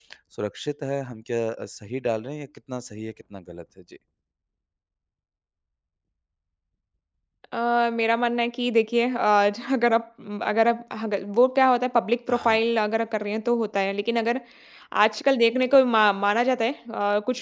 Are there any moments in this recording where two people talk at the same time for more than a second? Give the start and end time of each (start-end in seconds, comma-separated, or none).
none